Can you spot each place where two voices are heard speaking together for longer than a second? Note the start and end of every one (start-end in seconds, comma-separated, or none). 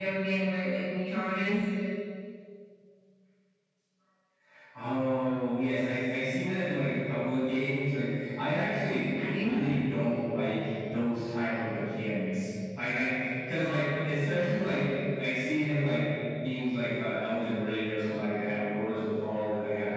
none